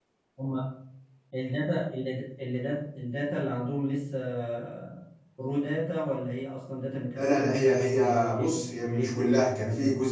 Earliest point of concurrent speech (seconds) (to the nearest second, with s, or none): 7 s